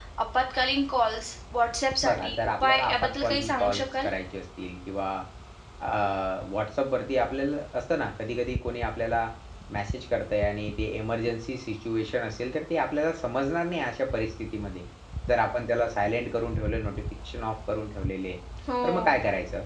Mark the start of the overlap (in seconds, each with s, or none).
2.0 s